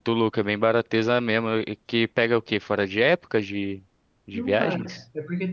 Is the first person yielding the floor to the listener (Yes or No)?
Yes